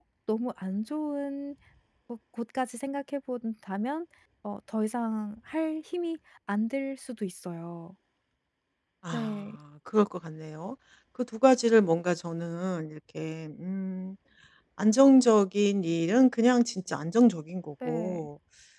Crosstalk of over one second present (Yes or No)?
No